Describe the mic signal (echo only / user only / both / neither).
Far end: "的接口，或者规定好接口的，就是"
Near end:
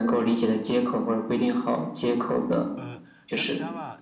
both